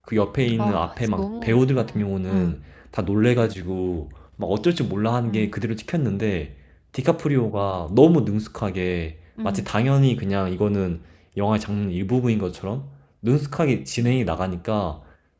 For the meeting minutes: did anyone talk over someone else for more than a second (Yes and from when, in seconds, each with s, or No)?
Yes, from 0.6 s